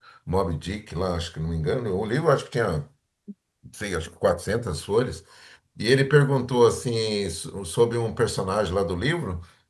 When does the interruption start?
none

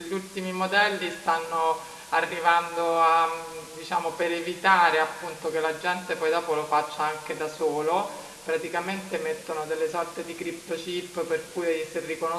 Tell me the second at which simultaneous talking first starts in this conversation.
none

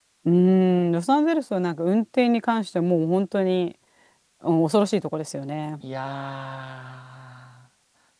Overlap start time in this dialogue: none

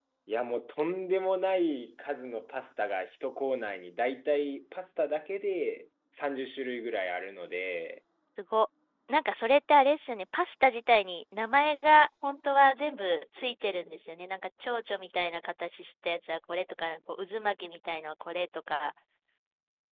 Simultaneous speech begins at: none

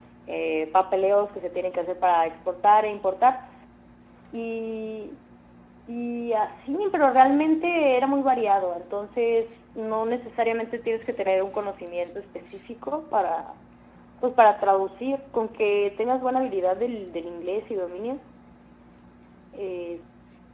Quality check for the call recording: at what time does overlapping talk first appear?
none

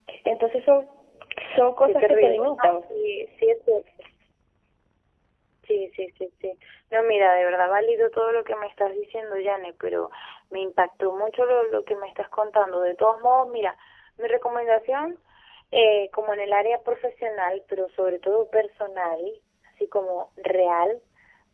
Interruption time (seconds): 1.5 s

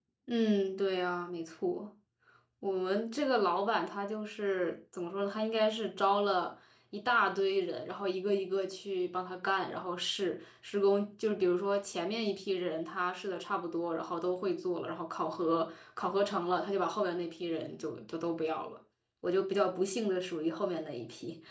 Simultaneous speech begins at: none

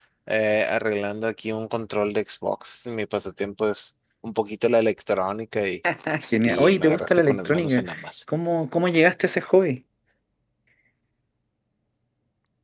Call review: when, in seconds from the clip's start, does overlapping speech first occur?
6.4 s

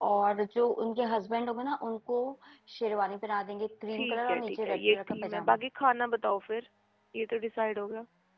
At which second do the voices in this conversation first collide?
3.9 s

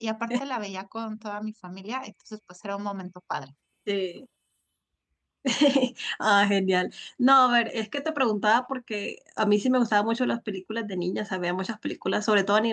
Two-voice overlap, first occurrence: none

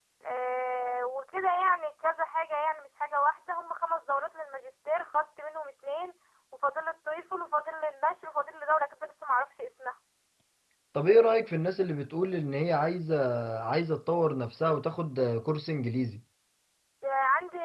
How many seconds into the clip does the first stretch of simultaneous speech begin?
none

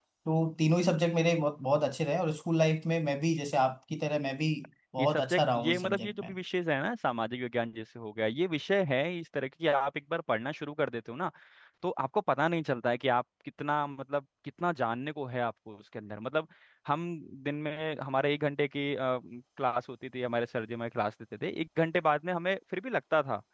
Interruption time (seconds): 5.0 s

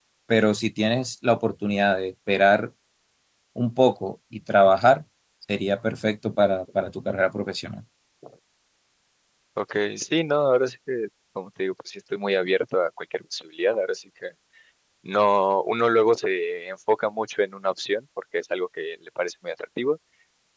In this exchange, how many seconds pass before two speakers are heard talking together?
none

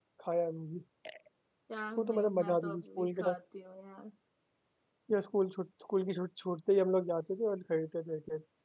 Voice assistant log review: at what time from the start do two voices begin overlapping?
2.0 s

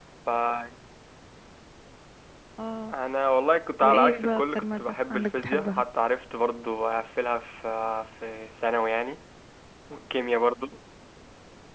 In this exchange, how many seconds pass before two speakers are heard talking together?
3.8 s

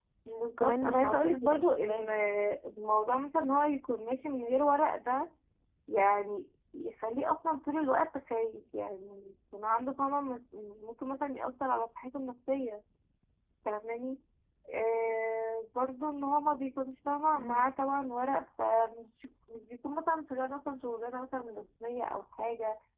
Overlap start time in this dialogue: 0.6 s

